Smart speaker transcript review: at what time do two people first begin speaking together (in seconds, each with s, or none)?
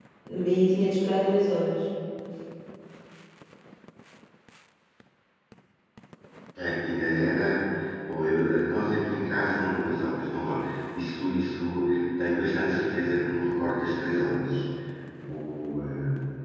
none